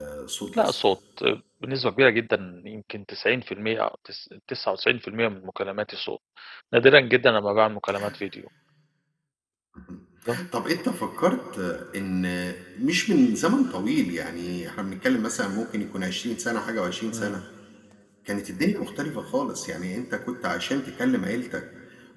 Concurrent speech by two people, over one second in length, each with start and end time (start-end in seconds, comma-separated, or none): none